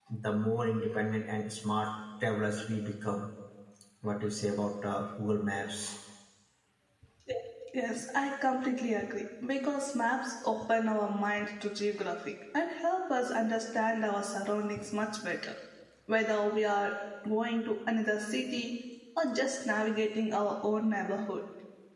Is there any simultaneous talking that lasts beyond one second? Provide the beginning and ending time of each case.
none

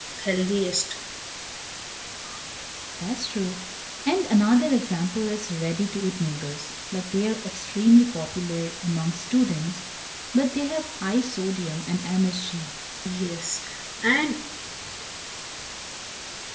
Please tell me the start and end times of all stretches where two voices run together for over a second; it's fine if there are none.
none

